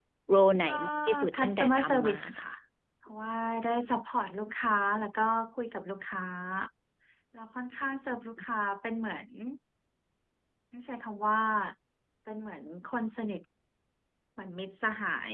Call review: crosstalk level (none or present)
present